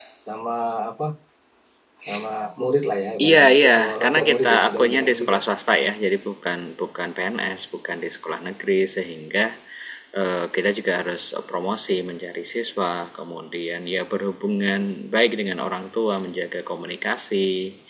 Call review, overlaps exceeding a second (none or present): present